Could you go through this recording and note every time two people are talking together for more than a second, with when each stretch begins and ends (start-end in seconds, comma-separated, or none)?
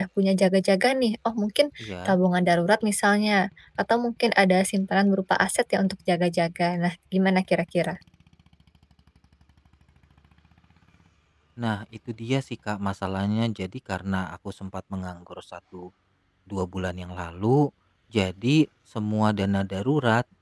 none